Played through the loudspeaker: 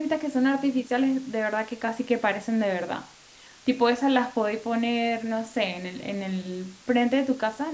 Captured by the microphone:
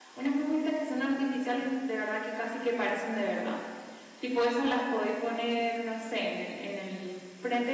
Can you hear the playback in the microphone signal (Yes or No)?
Yes